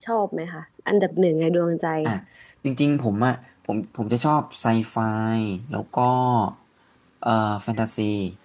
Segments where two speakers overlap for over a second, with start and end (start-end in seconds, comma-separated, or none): none